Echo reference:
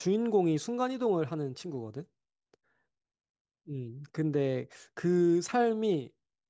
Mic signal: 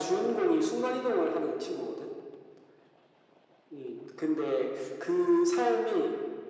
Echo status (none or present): present